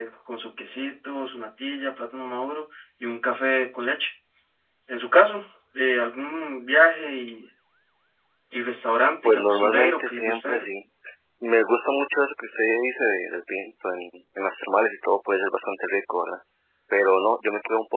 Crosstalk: present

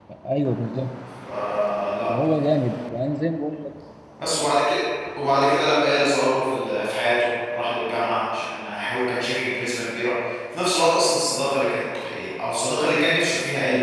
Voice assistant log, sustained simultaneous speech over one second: none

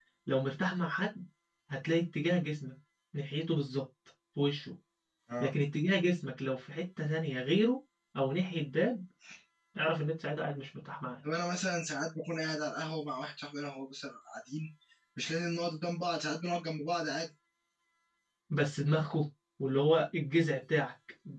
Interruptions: none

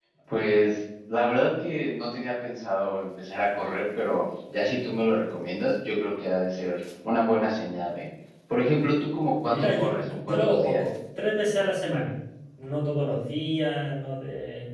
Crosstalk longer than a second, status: present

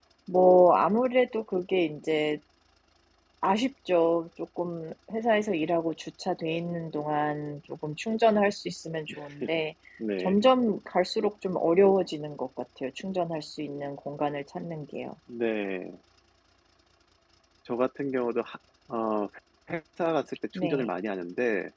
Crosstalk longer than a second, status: none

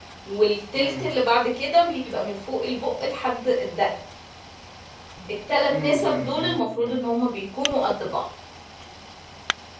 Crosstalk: present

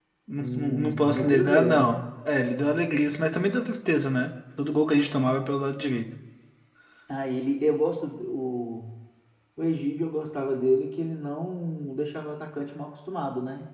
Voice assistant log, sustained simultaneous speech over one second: present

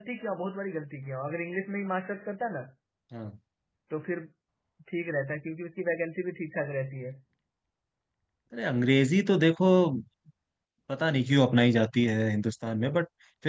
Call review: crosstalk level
none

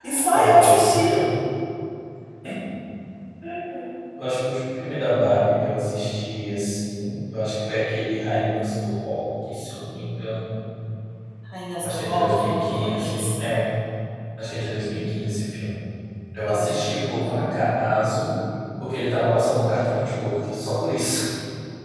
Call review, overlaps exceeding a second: present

